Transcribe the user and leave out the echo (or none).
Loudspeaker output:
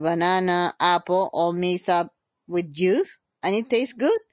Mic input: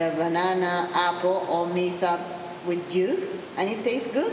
none